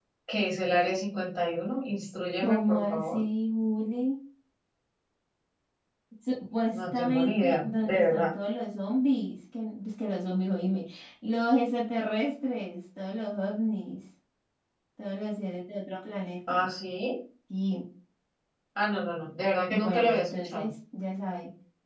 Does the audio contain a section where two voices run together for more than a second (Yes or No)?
Yes